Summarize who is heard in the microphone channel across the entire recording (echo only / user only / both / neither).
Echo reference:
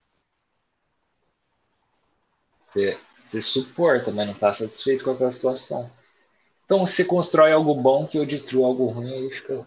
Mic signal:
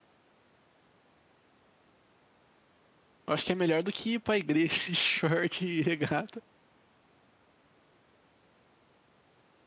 user only